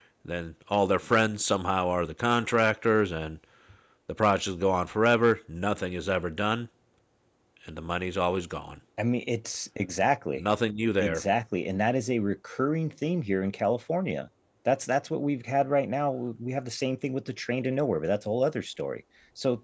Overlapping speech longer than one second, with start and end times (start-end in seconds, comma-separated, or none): none